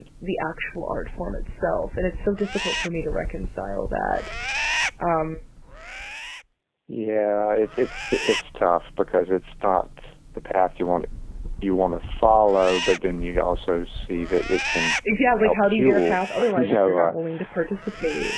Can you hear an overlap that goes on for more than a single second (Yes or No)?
Yes